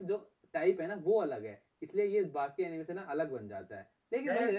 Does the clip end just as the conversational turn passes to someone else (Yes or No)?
No